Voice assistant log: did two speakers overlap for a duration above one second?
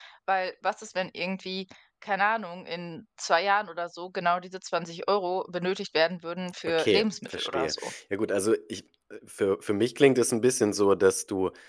Yes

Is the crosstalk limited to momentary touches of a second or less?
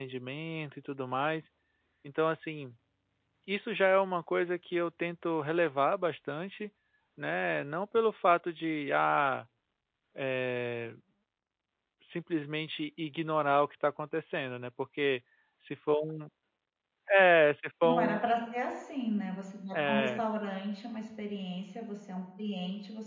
Yes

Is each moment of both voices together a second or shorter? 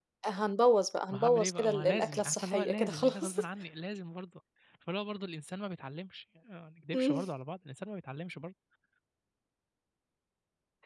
No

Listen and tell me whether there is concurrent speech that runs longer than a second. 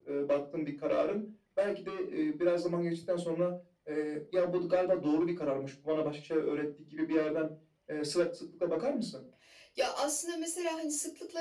No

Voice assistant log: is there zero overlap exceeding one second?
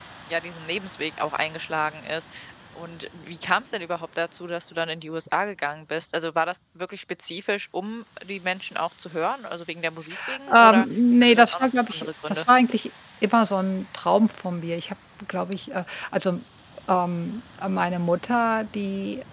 No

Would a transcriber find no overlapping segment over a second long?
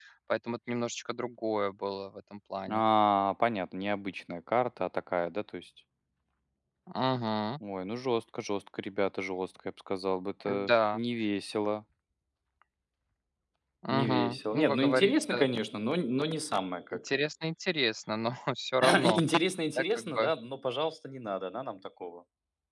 No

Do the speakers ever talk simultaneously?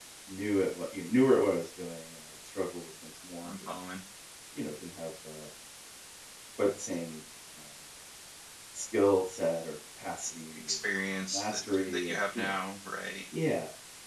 Yes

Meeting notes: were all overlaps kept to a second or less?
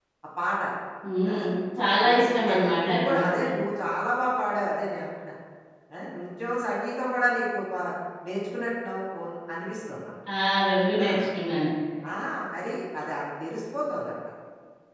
No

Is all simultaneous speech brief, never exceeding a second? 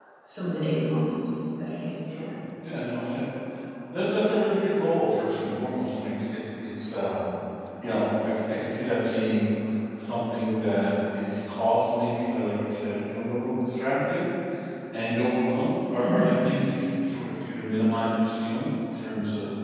Yes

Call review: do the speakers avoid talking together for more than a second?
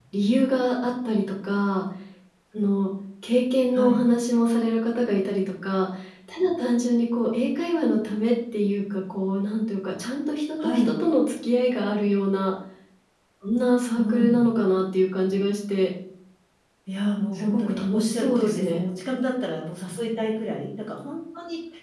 No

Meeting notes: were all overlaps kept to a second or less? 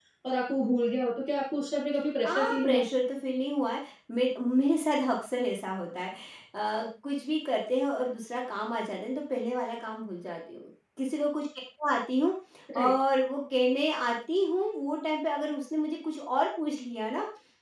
Yes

